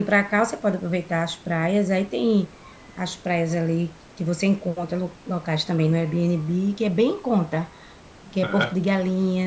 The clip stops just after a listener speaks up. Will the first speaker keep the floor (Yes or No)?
Yes